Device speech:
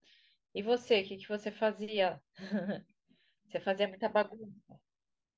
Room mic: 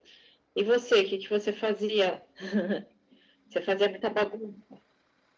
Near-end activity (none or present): none